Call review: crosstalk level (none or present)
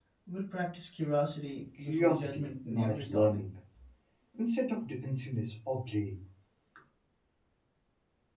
present